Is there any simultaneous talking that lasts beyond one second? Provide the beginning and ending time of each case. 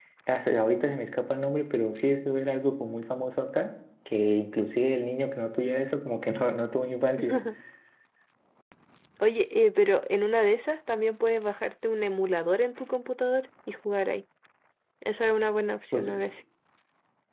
none

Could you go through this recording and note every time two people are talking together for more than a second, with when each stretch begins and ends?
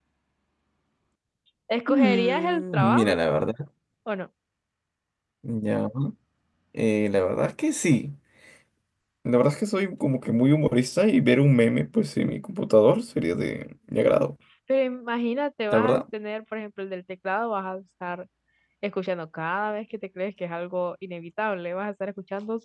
1.9-3.1

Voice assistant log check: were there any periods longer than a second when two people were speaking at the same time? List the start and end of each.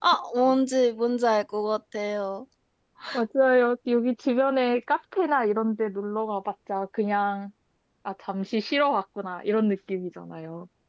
none

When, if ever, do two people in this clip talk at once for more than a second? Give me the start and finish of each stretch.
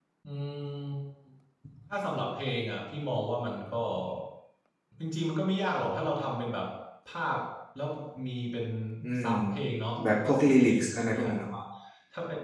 10.1-11.5

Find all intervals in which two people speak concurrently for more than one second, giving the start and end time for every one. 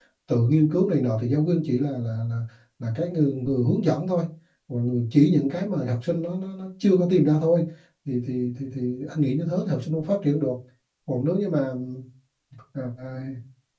none

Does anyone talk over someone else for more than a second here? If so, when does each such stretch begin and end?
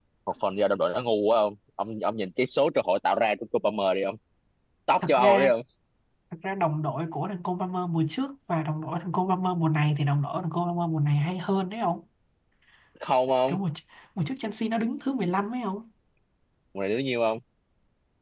none

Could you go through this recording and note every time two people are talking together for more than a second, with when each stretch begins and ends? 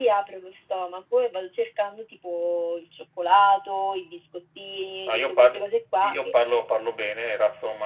none

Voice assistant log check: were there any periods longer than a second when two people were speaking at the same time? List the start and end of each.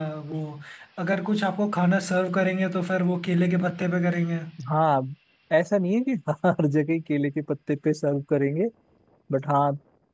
none

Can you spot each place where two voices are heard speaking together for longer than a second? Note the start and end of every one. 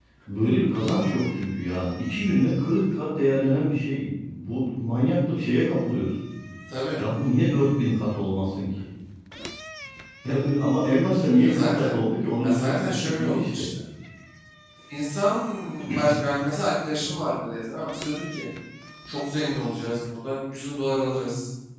12.4-13.7

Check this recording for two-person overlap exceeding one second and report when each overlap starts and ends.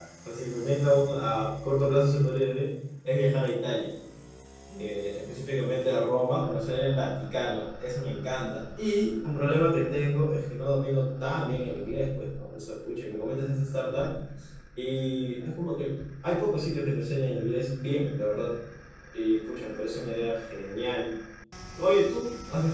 none

